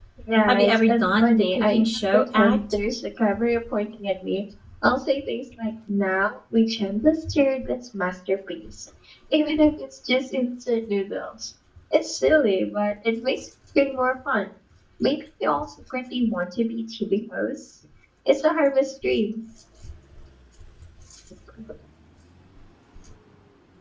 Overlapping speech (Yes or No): Yes